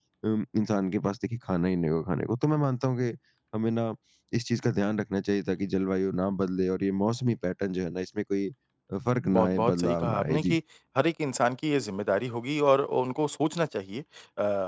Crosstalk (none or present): present